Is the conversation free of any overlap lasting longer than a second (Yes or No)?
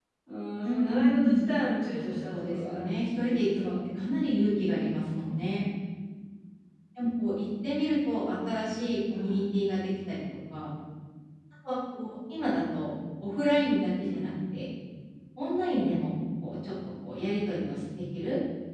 No